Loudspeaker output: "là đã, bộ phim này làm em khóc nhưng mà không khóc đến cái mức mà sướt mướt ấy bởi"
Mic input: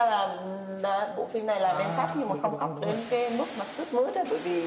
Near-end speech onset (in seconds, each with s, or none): 1.6 s